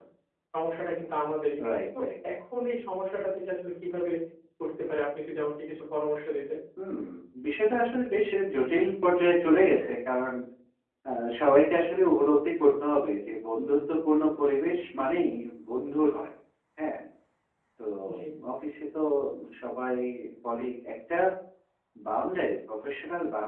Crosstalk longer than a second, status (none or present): none